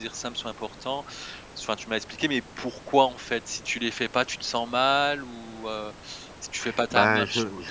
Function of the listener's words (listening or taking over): taking over